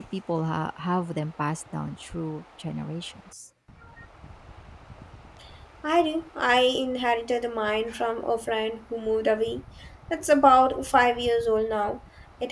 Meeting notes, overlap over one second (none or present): none